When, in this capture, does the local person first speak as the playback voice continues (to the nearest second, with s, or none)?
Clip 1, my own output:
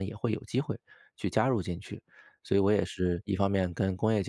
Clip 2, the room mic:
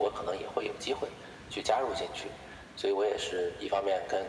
none